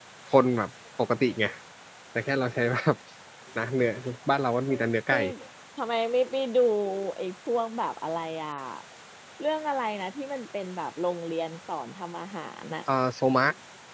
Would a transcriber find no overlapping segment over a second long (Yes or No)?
Yes